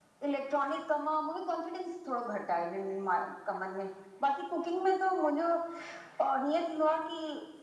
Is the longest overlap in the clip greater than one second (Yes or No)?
No